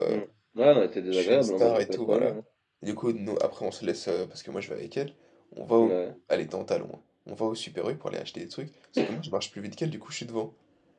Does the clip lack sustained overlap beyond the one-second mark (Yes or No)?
No